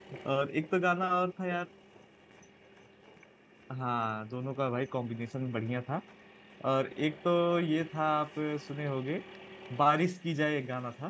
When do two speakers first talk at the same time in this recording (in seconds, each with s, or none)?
none